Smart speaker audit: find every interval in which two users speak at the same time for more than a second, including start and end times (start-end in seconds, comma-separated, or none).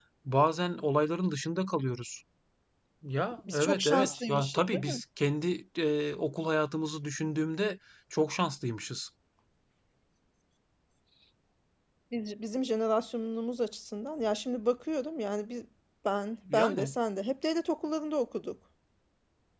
3.5-5.0